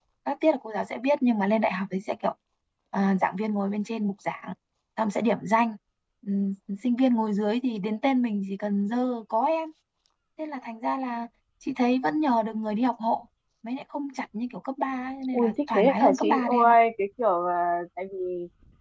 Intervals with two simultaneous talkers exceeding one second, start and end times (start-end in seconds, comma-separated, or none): 15.3-16.8